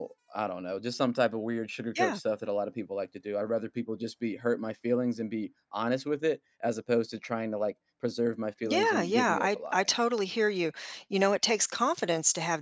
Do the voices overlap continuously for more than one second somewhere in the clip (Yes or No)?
Yes